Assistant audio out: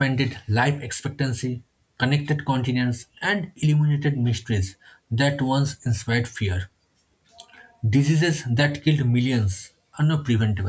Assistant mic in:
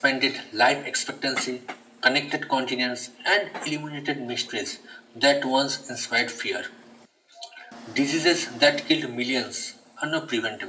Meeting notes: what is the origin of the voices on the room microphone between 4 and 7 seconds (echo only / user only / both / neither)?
echo only